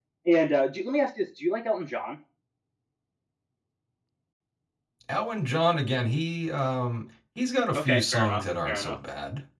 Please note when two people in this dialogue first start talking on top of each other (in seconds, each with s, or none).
7.7 s